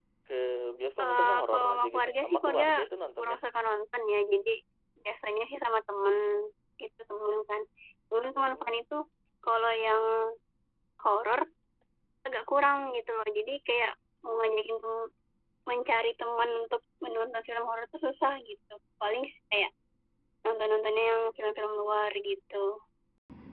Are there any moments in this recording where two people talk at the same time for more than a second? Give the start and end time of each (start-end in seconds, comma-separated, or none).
1.0-2.7